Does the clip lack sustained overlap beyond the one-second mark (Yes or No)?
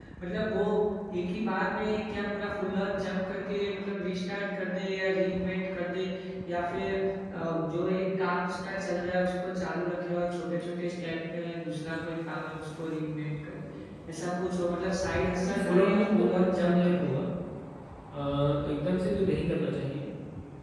No